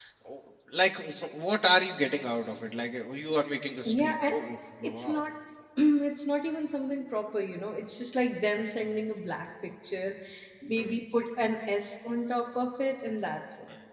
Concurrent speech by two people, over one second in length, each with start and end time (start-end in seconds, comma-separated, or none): none